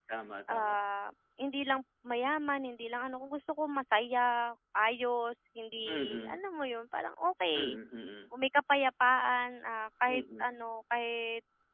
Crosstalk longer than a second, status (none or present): none